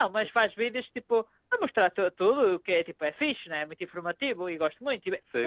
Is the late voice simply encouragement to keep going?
No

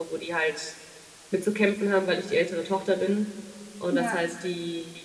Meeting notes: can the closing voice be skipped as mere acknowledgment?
Yes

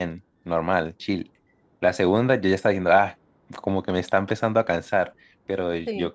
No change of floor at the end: Yes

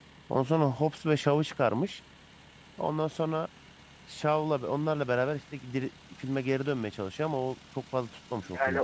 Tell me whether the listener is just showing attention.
No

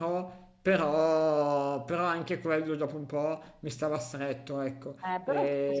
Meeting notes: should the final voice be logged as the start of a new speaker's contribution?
Yes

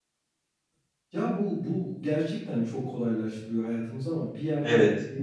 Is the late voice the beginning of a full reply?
No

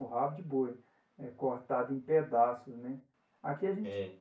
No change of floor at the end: Yes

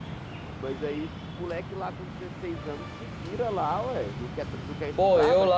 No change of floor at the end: No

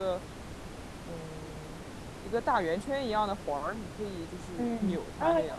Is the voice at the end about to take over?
Yes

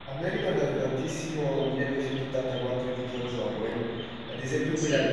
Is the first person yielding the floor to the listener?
No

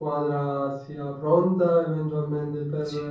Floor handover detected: Yes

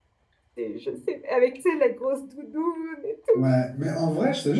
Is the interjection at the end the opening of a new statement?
Yes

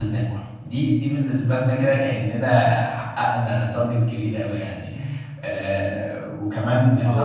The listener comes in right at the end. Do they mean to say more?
Yes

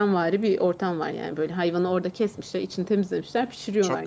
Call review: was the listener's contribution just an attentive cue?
Yes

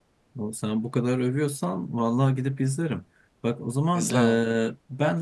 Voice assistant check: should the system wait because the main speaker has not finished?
Yes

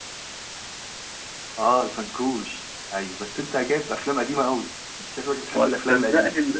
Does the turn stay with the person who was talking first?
No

